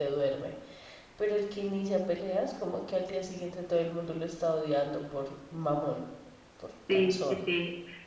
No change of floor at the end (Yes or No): No